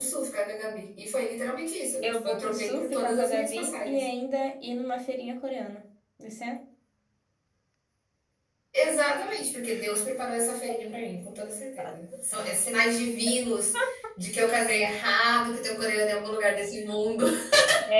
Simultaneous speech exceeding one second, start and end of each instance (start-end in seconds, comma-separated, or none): 2.0-4.0